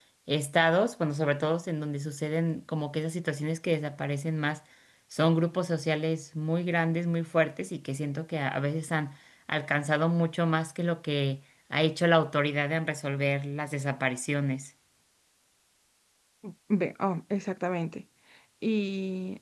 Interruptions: none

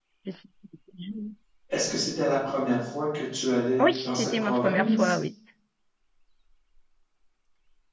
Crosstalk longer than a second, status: present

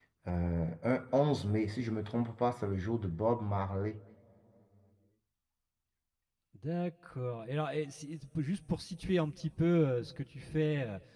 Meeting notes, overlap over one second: none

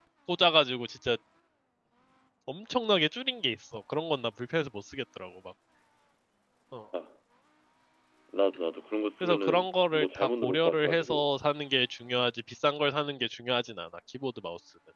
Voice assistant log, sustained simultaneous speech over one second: present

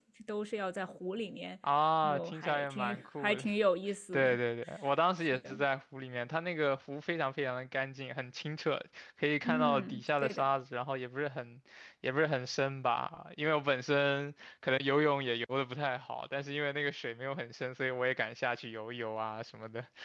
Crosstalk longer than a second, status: present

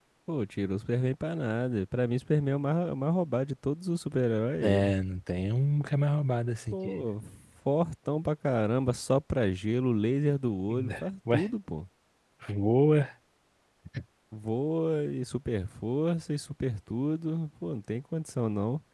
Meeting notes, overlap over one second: none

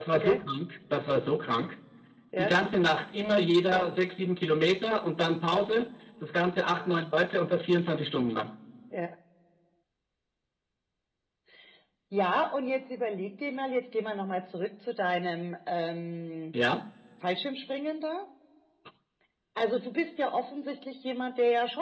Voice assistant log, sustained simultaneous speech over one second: none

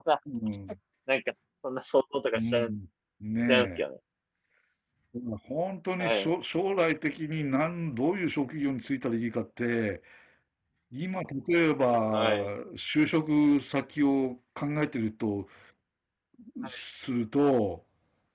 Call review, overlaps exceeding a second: none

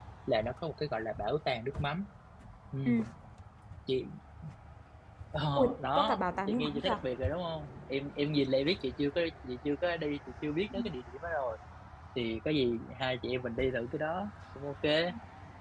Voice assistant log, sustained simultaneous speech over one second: present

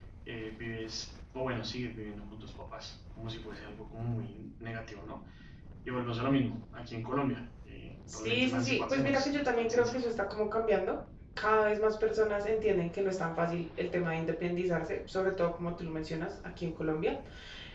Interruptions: present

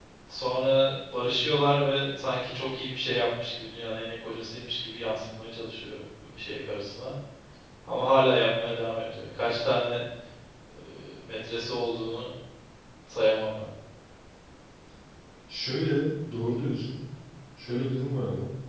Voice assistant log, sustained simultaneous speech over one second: none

